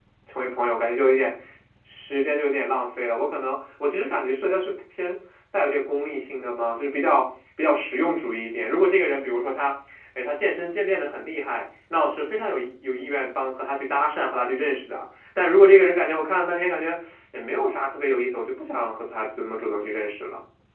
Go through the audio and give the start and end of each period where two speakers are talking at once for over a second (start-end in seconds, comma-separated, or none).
none